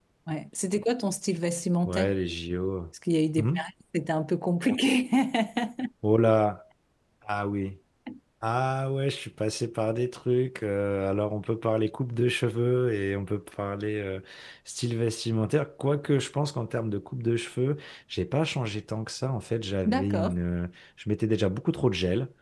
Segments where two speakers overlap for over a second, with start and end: none

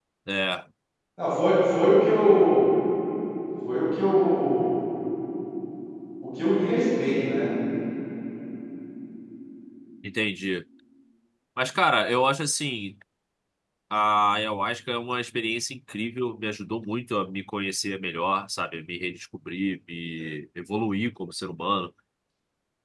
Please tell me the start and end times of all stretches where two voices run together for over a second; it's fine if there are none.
none

